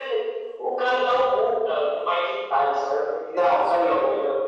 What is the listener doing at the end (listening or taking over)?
listening